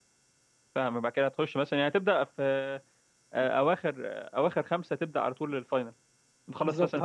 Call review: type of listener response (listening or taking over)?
taking over